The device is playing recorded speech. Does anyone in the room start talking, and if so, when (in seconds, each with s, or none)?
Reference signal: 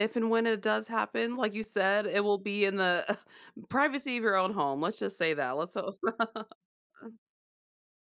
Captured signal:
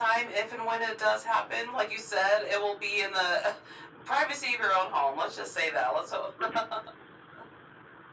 none